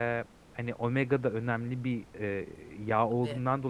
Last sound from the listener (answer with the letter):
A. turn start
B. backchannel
B